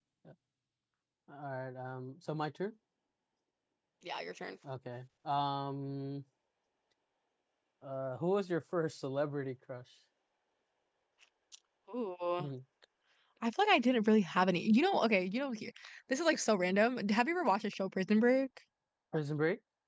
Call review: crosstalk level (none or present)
none